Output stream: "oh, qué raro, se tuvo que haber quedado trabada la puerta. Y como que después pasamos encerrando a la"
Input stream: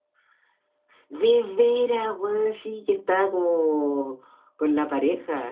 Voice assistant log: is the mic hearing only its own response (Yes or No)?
No